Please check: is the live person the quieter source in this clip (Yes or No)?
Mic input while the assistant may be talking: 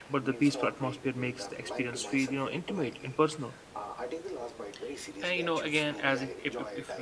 No